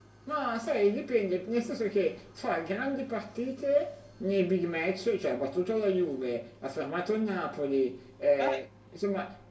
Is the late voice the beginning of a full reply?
No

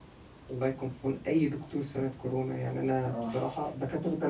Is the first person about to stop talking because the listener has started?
No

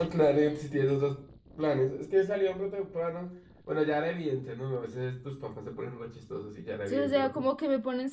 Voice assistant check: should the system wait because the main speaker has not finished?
No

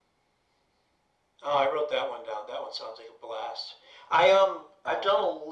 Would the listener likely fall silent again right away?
Yes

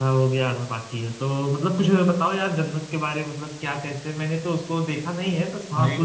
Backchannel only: Yes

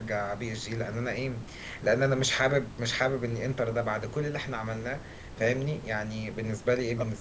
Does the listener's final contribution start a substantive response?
Yes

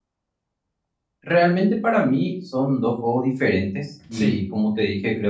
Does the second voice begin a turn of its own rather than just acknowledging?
No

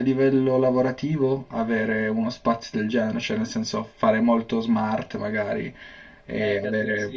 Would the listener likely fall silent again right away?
No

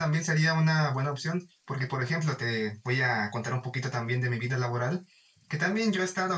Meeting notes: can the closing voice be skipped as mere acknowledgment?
Yes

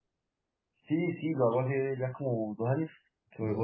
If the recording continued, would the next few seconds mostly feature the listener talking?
No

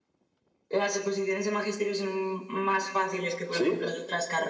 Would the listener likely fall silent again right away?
Yes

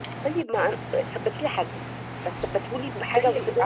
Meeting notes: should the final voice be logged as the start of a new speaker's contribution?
Yes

